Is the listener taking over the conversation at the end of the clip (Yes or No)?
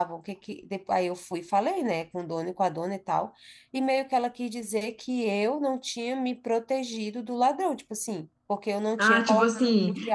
Yes